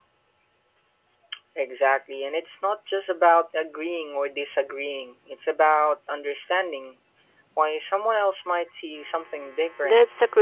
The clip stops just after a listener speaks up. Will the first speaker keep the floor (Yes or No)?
No